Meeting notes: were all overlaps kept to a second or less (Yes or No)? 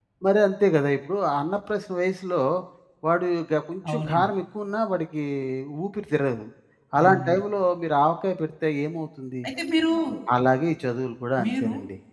Yes